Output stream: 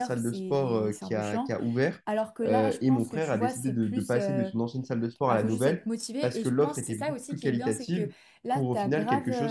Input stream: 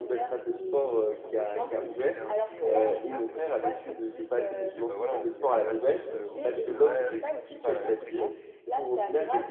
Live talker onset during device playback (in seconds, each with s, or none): 1.5 s